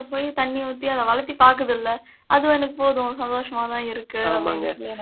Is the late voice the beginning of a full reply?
Yes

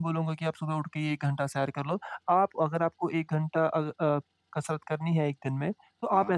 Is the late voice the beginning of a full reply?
No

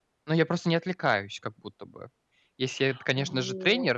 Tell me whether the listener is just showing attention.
Yes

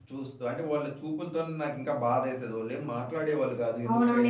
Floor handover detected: Yes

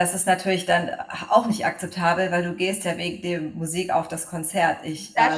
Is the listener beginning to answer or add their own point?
Yes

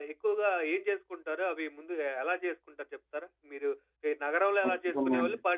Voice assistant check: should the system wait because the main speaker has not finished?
Yes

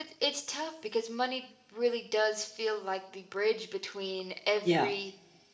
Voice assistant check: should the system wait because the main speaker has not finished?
Yes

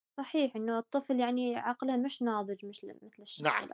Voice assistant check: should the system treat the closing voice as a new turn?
Yes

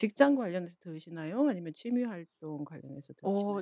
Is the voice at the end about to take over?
Yes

